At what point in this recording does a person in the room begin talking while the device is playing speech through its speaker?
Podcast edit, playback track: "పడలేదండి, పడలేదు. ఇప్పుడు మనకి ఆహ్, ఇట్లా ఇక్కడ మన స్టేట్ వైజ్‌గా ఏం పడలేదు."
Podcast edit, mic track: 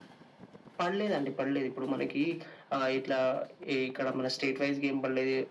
none

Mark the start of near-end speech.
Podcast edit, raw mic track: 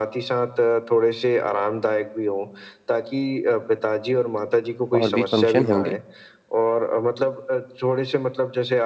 5 s

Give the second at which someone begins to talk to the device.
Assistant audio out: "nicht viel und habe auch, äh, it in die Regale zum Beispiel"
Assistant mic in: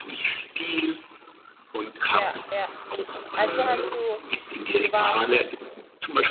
2 s

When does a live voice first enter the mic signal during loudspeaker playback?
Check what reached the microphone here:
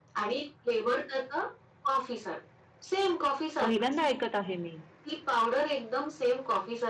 4 s

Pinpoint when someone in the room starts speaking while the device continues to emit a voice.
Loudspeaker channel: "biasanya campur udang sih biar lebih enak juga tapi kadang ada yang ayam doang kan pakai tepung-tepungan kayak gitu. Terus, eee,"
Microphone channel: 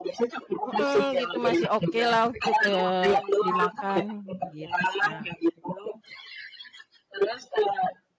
1 s

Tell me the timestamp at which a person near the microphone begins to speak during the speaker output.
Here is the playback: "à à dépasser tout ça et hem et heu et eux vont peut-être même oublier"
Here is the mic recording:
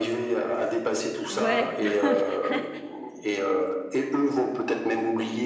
1 s

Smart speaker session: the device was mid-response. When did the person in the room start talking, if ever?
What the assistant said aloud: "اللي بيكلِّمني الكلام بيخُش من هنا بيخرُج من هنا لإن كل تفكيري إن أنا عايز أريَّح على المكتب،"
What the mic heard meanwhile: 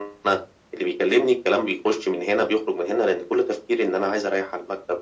none

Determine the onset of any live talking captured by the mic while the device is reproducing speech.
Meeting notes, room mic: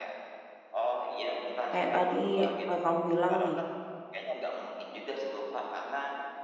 2 s

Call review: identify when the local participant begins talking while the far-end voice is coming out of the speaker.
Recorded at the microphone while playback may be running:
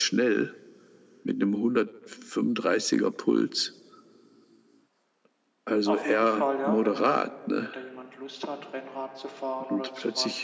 6 s

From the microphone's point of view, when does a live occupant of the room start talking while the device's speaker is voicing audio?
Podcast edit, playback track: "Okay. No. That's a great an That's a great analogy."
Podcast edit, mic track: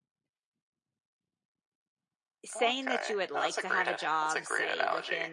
2 s

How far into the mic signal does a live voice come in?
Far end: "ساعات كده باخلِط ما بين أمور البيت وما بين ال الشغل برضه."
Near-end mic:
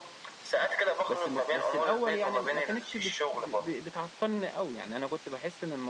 1 s

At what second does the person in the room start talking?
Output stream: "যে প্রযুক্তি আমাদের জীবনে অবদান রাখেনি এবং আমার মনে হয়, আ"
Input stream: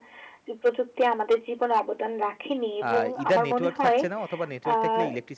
3 s

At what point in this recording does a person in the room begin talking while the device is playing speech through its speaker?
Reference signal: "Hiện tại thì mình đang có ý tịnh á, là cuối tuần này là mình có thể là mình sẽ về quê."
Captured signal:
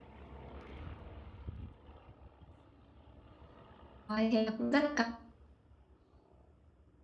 4 s

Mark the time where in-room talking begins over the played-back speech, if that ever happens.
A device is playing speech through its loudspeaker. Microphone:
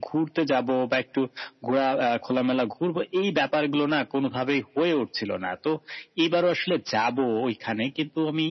none

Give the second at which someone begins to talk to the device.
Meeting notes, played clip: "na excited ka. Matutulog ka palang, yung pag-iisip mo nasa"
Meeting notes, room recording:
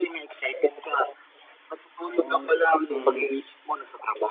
2 s

